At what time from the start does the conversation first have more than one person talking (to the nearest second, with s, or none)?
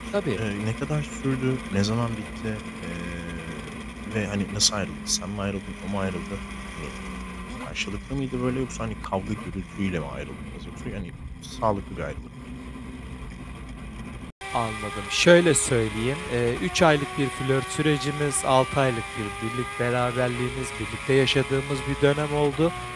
none